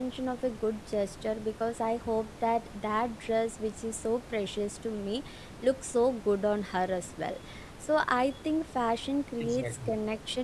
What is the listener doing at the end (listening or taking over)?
listening